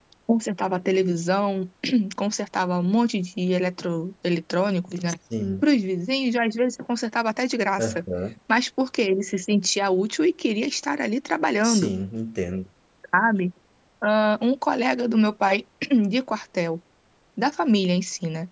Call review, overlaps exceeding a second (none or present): none